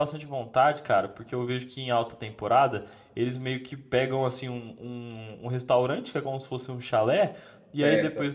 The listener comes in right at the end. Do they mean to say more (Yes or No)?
No